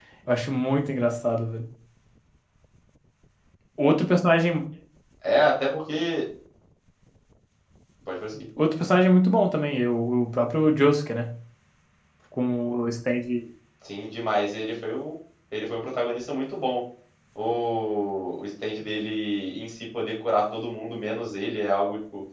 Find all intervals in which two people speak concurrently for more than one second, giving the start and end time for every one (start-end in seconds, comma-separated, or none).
none